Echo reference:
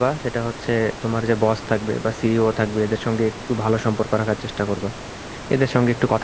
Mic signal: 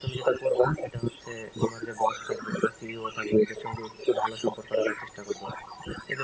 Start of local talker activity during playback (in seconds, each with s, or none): none